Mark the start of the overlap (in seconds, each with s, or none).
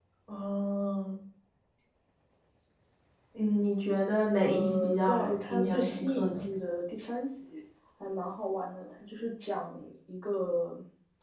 4.4 s